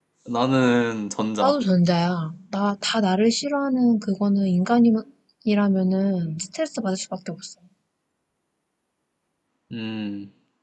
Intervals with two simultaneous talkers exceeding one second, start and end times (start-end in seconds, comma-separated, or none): none